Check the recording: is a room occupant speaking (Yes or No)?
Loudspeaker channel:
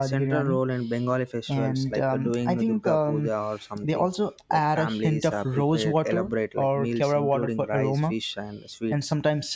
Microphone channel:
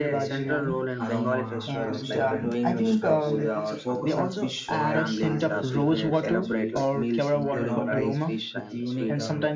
Yes